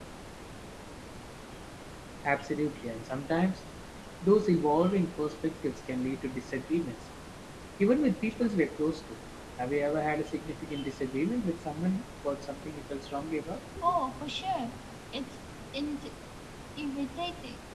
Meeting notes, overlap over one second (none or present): none